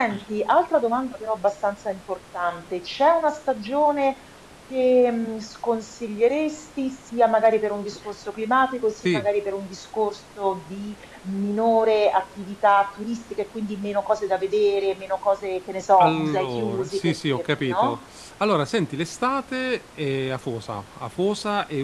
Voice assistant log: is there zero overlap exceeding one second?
No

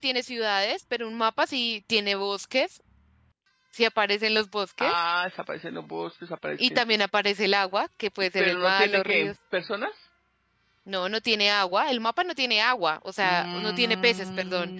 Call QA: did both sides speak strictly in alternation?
No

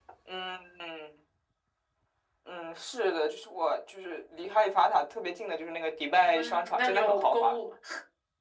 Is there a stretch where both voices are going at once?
Yes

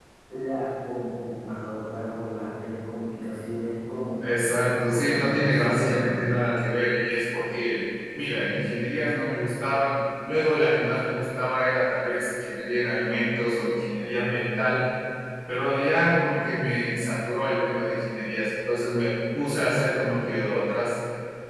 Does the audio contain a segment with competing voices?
Yes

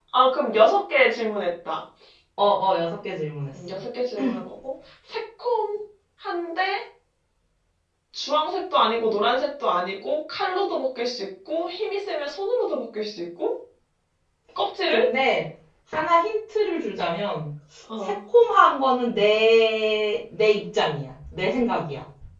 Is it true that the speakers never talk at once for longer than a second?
Yes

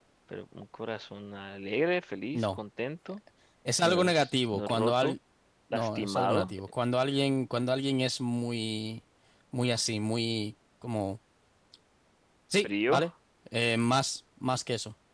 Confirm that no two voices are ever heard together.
No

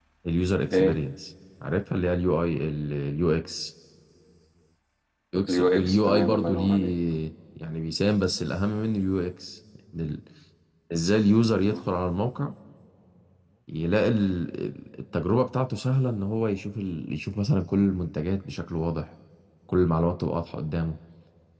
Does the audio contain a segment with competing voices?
Yes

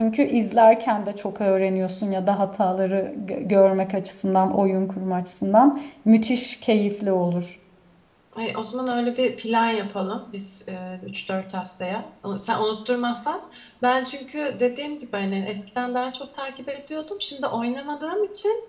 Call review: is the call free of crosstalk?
Yes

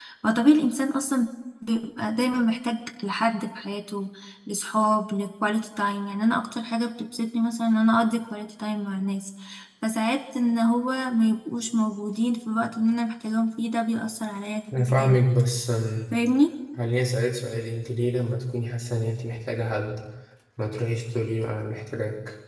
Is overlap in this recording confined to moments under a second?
Yes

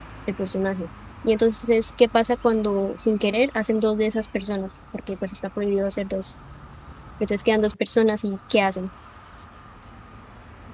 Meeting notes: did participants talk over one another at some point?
No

